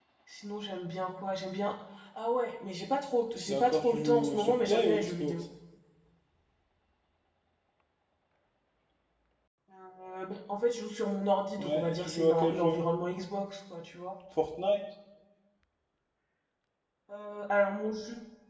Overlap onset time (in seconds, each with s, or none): 3.5 s